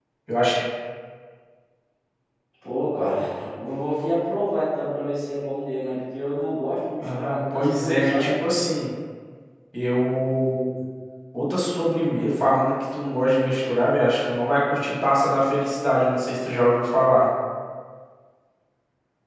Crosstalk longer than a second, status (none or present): present